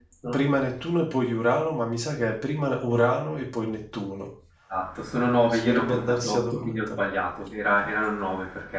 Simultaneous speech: Yes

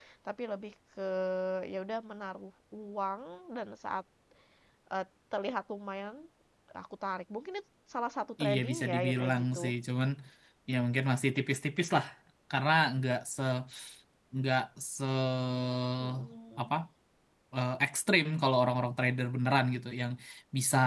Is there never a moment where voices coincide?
No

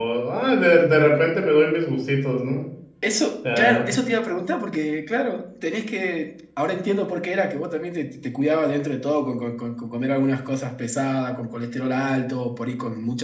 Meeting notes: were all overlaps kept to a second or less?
Yes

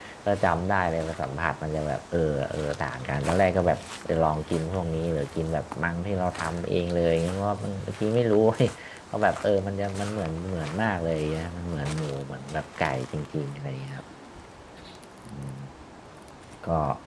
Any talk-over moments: No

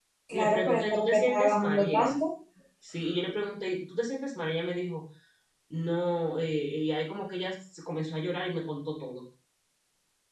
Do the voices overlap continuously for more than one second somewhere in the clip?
Yes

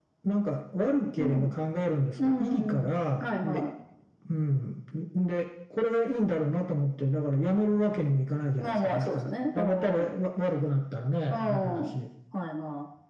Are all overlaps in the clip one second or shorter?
No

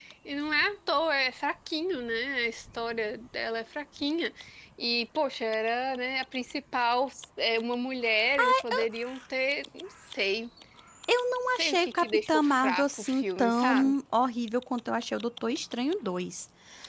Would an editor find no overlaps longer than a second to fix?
No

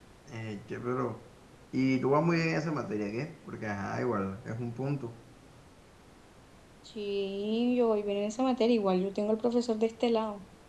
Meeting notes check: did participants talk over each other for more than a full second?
No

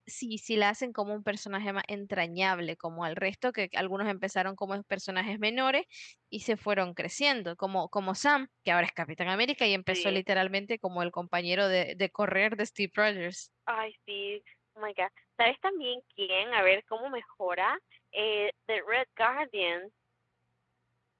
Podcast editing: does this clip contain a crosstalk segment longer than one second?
No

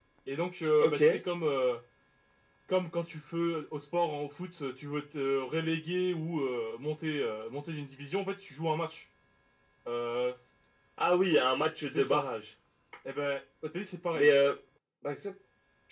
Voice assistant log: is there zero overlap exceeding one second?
Yes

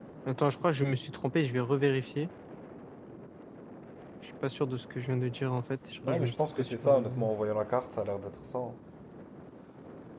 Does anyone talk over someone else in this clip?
Yes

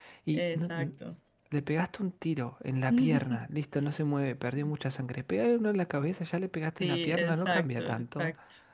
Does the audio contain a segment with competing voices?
Yes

